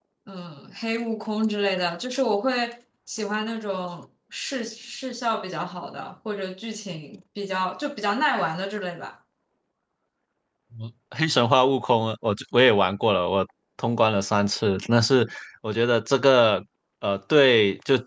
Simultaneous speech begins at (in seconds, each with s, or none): none